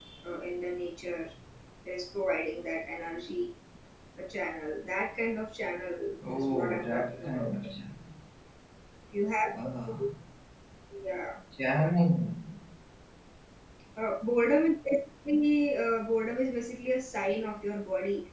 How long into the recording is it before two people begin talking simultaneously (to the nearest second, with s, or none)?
6 s